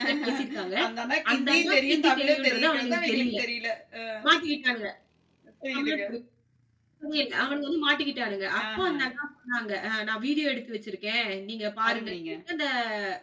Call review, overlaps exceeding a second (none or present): present